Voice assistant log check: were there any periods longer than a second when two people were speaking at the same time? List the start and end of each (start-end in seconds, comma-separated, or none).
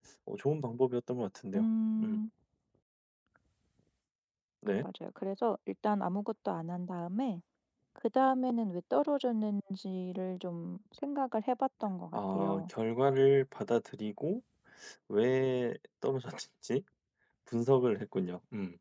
none